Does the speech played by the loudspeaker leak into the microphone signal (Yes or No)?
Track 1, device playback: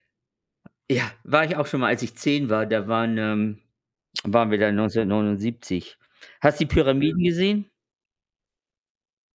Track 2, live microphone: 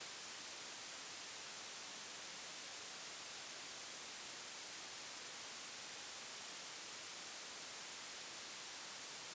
No